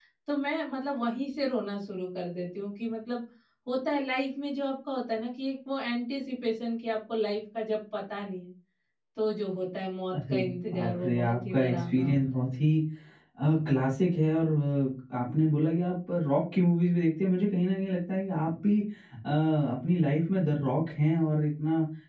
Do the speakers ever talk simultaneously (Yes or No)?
Yes